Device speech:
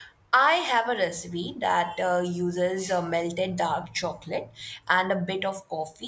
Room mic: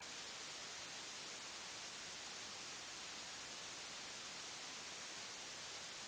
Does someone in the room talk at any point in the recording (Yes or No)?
No